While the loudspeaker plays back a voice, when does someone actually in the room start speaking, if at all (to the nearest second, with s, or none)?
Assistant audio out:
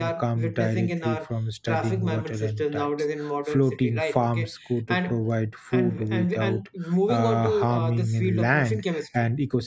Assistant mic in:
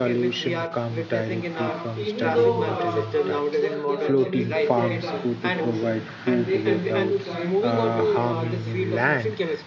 1 s